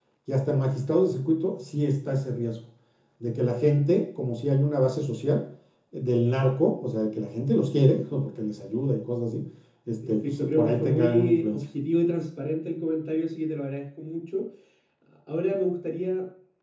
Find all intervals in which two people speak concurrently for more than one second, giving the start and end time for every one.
10.3-11.6

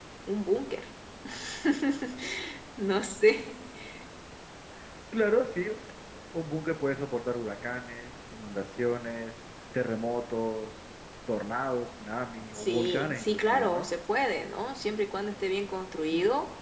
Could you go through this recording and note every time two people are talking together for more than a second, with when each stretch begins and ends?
12.5-13.9

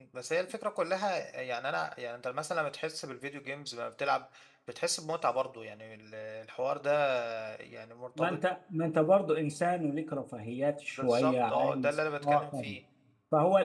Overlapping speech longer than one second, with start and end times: 11.0-12.8

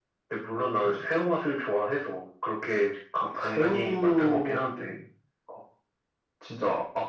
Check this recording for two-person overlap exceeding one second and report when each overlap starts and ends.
3.4-4.9

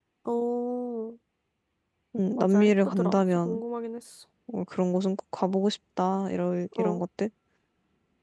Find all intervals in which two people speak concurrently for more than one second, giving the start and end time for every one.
2.4-3.6

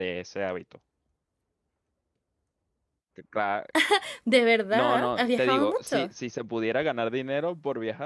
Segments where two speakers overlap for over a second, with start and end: 4.7-6.1

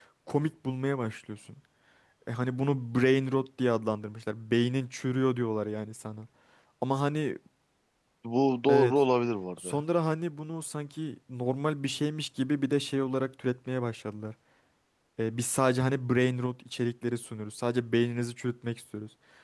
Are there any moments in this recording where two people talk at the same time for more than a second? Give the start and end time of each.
none

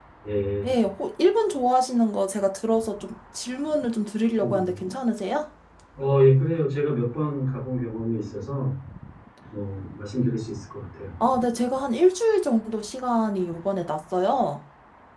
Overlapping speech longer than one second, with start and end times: none

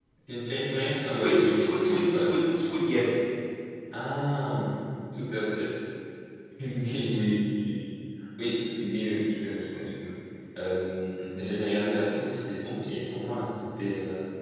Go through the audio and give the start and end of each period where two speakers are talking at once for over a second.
0.9-2.3

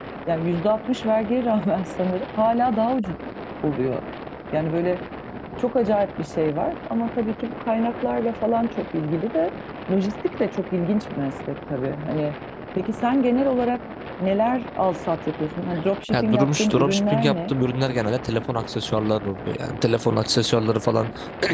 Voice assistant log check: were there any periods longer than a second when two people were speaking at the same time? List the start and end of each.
16.1-17.5

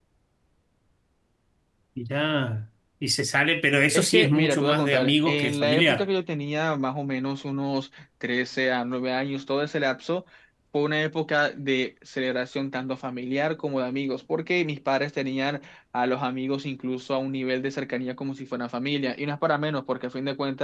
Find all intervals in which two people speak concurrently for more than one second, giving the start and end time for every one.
3.9-6.0

